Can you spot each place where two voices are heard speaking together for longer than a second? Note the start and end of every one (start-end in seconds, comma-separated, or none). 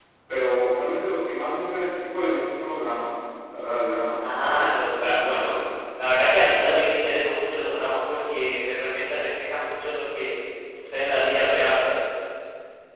4.2-5.5